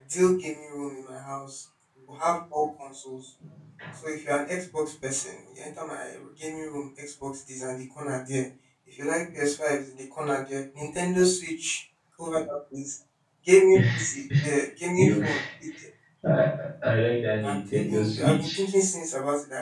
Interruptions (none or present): present